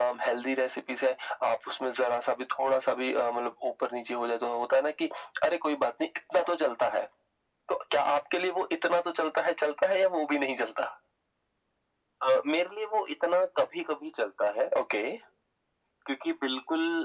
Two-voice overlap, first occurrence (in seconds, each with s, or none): none